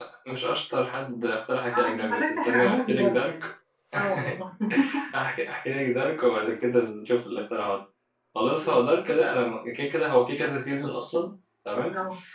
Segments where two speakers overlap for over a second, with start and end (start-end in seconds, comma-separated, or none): 1.7-3.3